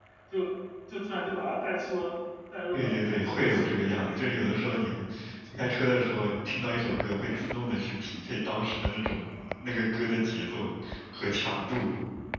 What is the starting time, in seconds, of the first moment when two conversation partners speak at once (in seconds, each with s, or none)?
2.7 s